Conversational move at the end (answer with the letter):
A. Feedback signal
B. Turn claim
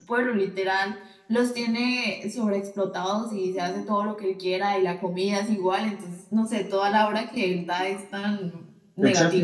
B